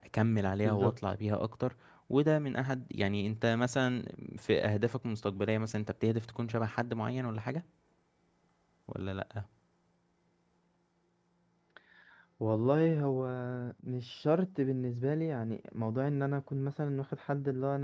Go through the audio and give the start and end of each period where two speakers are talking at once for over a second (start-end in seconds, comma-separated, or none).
none